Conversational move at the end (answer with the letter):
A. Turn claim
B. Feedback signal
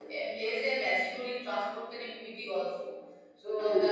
B